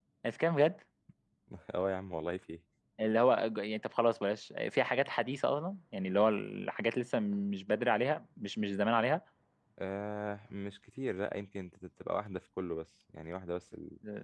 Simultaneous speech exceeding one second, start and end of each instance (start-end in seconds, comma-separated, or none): none